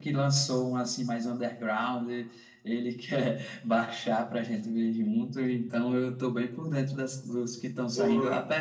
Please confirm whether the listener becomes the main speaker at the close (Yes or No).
No